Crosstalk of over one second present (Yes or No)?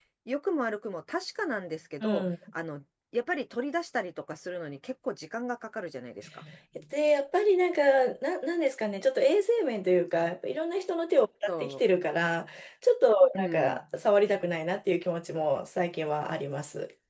No